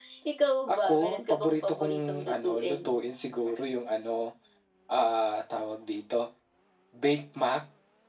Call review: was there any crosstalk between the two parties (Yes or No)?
Yes